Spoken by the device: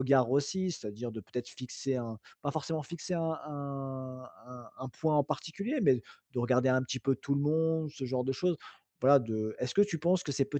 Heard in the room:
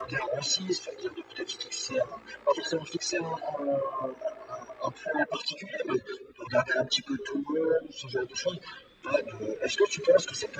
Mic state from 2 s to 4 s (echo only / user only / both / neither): echo only